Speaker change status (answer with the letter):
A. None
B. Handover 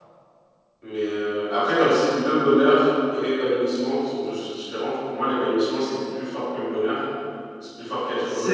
A